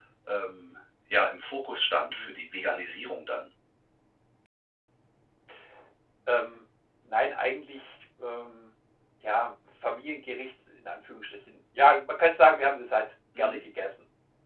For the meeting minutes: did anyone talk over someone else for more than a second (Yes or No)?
No